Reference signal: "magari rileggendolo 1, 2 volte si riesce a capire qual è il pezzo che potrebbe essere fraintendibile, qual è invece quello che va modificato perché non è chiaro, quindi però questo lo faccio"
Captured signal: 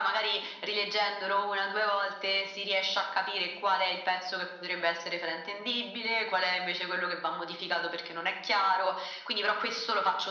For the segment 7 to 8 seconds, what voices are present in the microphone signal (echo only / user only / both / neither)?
echo only